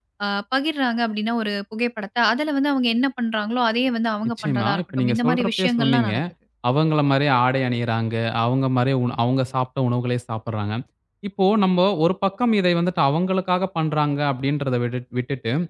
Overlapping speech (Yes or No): Yes